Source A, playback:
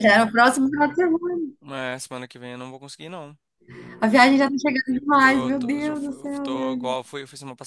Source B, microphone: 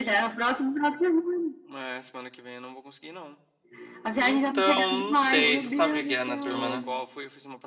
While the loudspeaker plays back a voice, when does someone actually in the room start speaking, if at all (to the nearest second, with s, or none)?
4 s